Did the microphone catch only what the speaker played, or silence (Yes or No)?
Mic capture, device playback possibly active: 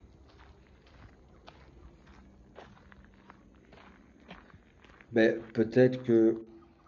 No